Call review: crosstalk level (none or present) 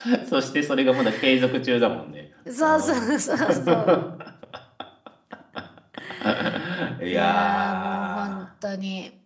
present